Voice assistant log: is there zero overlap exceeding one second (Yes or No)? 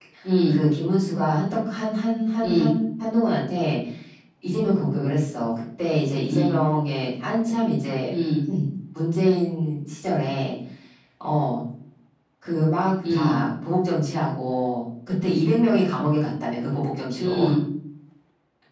Yes